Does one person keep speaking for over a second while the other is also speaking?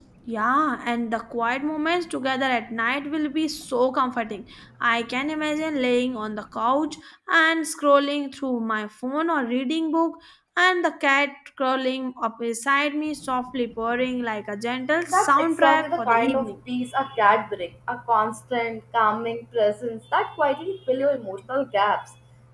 Yes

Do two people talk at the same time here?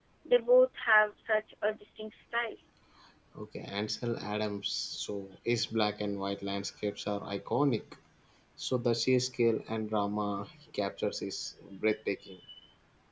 No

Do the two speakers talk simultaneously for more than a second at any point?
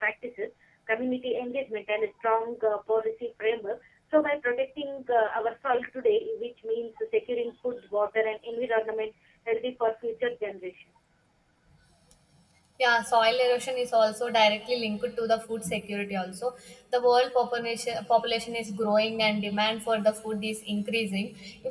No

